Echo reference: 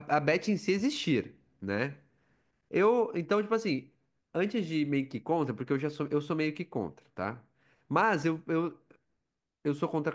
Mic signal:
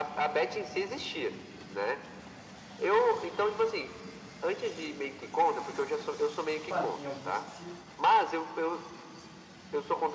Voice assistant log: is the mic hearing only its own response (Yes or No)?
No